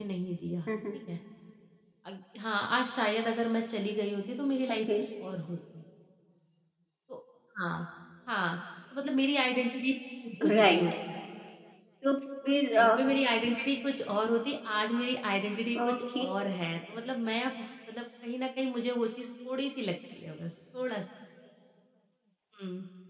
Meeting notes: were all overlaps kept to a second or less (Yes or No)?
Yes